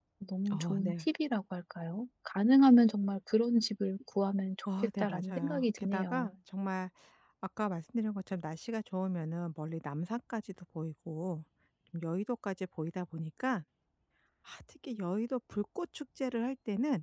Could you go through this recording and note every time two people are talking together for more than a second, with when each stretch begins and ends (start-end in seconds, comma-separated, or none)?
4.8-6.3